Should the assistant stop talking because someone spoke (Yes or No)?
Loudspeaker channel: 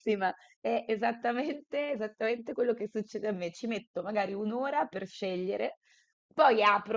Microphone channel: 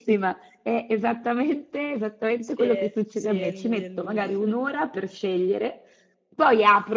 Yes